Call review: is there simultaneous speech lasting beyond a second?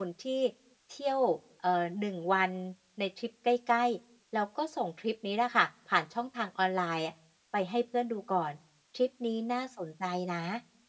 No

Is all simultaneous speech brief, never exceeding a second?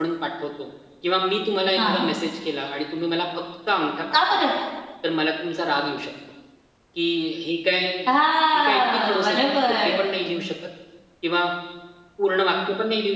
No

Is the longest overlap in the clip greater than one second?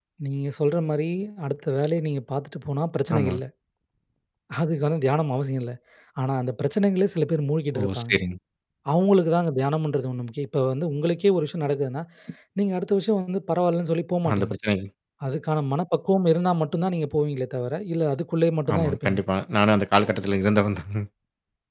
No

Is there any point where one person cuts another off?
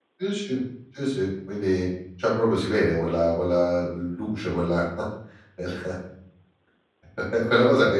No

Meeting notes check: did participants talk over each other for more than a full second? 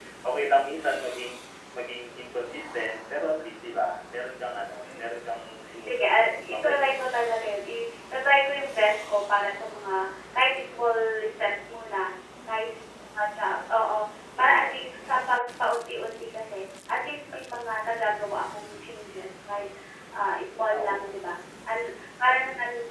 Yes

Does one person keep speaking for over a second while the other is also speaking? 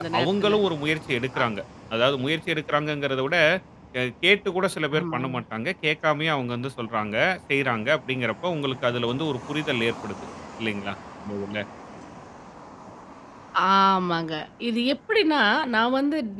No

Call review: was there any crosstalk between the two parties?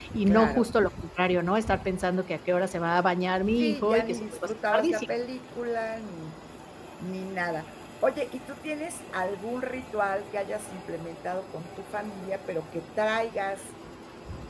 Yes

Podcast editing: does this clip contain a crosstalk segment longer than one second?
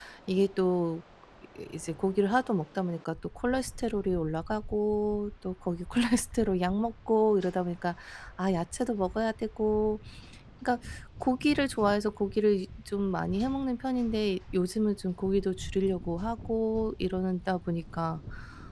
No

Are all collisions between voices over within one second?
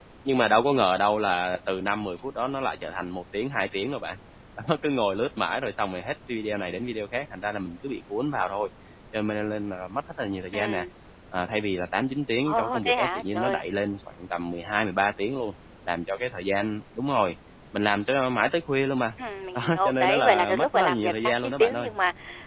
No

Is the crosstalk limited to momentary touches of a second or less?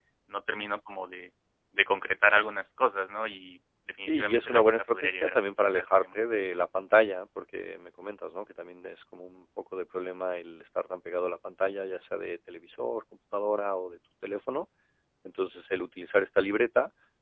No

